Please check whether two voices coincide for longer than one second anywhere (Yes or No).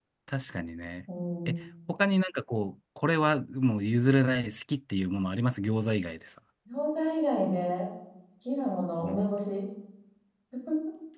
No